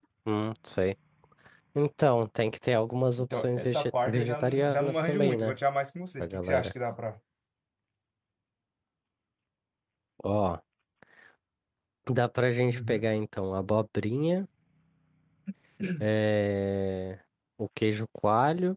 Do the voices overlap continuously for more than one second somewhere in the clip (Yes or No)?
Yes